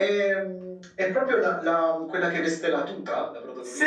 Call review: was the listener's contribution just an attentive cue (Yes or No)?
No